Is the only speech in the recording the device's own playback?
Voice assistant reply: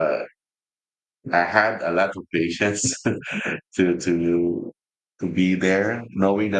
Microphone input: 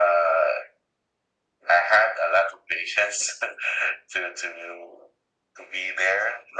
Yes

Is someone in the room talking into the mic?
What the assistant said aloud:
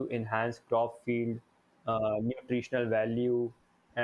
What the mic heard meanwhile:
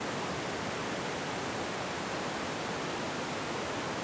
No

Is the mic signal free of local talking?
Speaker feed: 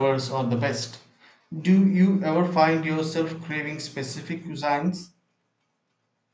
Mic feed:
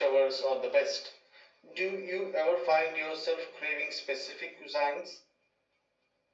Yes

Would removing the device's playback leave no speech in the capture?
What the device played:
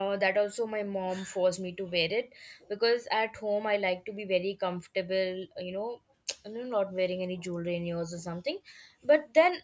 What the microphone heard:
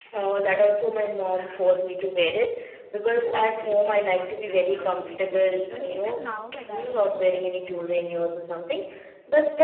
No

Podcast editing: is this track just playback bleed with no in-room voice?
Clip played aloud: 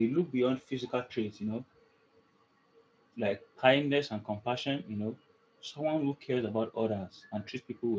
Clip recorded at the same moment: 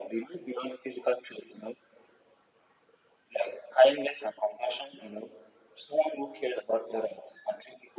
Yes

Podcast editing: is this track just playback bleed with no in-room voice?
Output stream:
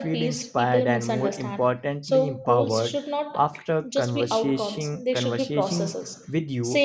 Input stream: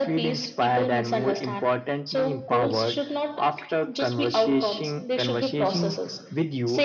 Yes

